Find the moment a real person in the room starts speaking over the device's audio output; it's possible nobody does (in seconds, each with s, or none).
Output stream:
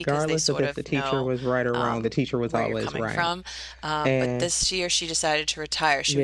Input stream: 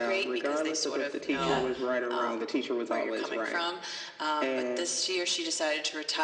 1.3 s